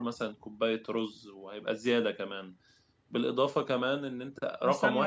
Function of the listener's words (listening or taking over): taking over